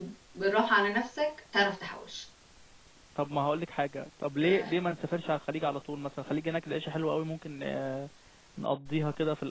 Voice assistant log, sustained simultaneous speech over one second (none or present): none